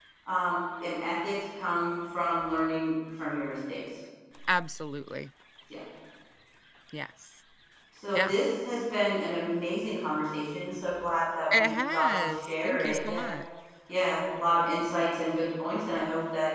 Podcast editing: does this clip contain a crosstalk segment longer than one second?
Yes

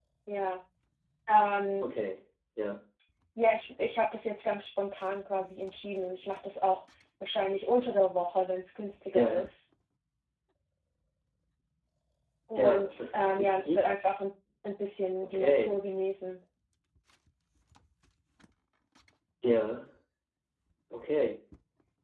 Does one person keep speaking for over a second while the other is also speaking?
Yes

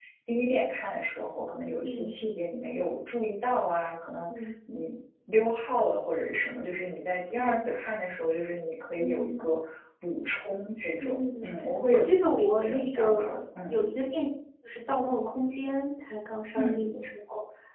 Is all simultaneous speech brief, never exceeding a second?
No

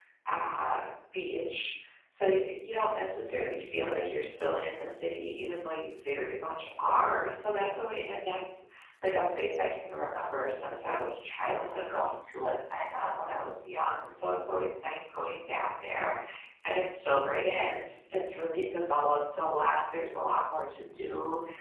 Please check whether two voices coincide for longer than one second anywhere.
No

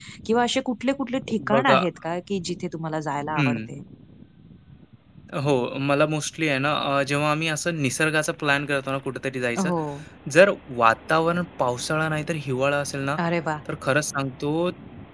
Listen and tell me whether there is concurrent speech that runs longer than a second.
No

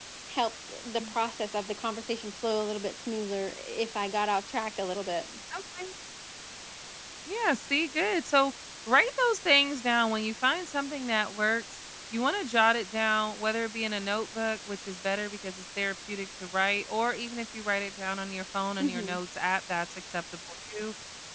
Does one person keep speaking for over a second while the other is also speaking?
No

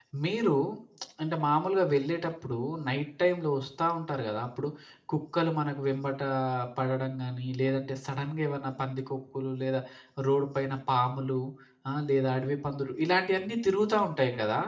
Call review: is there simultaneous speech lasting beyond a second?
No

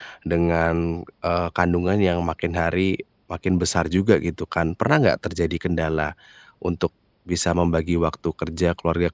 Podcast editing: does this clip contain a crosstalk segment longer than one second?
No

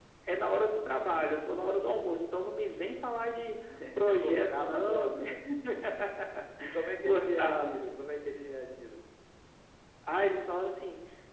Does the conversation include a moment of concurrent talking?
Yes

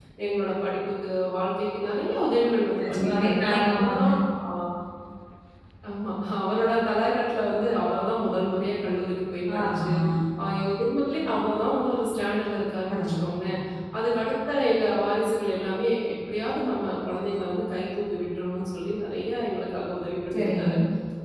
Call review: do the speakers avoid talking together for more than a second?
No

